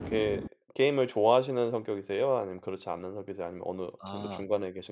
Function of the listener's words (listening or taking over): taking over